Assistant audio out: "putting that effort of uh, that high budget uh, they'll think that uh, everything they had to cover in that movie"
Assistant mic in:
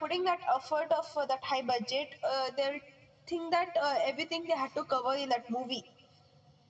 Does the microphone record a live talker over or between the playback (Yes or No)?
No